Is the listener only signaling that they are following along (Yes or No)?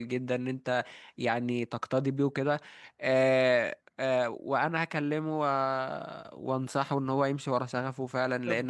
Yes